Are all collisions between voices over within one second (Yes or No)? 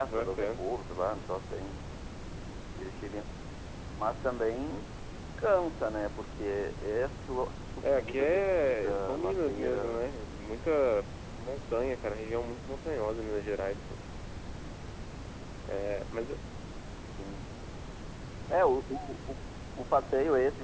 No